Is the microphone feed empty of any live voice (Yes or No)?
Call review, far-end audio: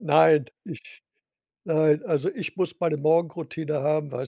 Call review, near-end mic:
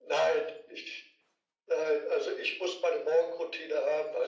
Yes